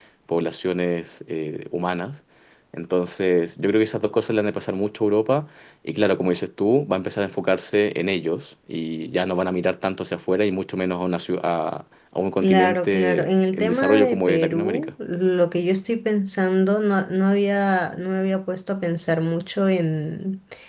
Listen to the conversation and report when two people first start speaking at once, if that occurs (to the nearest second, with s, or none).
12 s